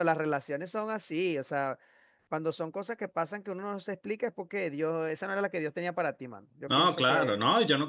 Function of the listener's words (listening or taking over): taking over